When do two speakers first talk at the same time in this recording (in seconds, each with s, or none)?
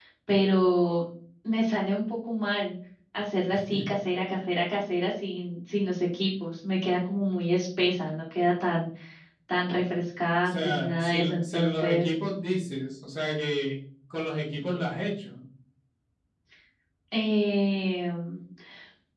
10.4 s